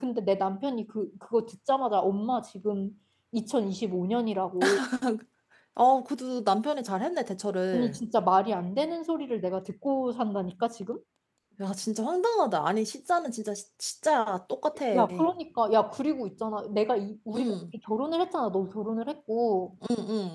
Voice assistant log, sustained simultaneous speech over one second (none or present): none